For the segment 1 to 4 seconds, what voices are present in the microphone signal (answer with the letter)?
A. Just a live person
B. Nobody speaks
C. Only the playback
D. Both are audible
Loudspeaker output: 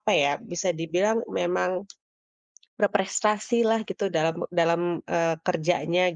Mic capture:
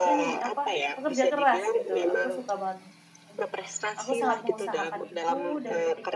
D